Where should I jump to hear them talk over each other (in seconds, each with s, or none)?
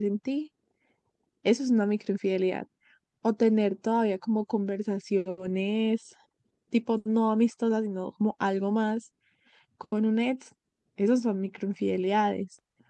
none